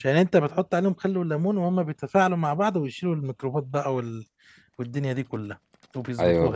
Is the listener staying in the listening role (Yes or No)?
No